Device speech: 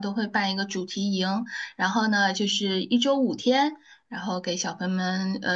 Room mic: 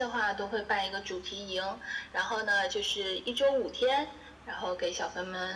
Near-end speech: none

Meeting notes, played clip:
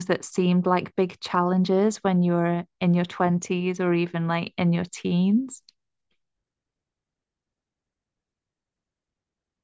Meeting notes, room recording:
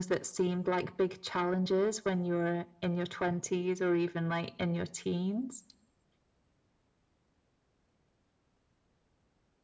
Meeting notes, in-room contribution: none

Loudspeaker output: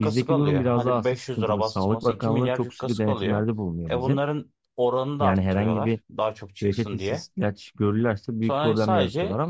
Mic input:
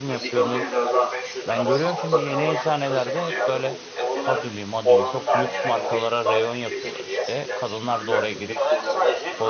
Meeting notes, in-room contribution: present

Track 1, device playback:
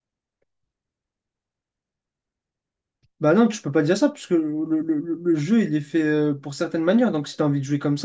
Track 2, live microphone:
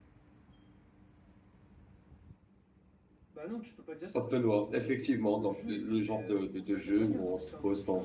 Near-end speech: present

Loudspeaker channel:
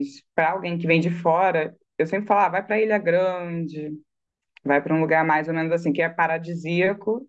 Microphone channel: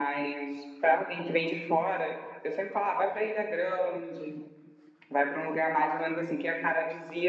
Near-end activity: none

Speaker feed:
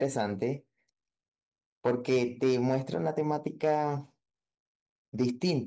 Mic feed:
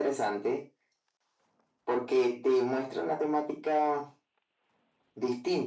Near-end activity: none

